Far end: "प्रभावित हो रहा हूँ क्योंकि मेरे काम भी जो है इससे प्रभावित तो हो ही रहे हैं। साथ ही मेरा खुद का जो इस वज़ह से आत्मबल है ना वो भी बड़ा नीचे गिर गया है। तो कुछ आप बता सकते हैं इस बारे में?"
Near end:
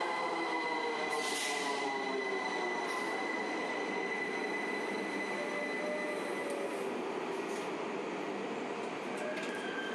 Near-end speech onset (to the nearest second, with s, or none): none